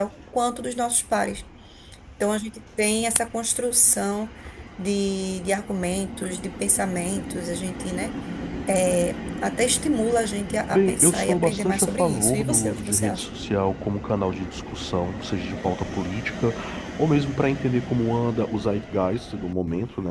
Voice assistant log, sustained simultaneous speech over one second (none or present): present